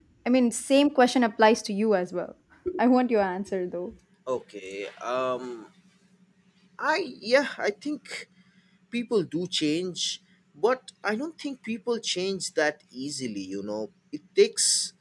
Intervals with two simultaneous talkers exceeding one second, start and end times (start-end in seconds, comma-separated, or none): none